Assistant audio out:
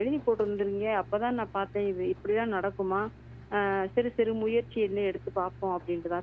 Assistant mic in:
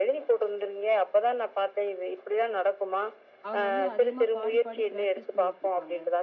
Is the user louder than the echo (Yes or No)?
No